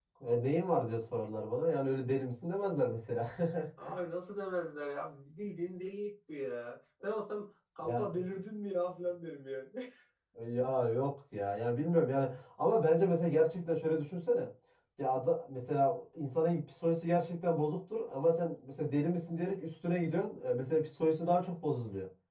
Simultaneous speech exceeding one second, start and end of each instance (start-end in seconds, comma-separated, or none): none